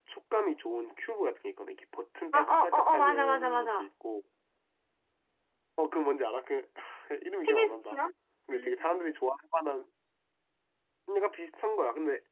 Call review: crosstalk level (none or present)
present